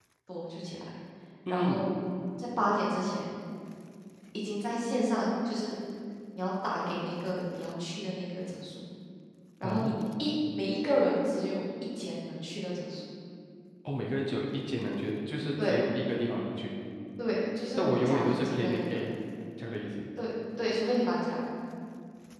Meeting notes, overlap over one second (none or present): present